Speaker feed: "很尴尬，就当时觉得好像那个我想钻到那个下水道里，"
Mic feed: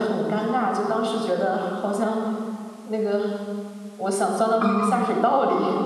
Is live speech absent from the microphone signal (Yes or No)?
No